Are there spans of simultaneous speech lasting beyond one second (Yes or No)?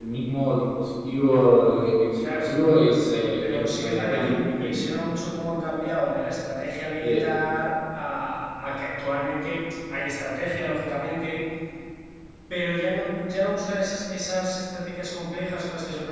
Yes